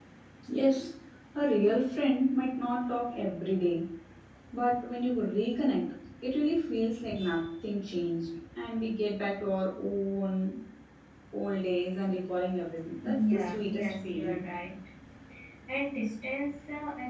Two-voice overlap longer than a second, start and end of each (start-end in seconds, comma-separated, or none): 13.0-14.4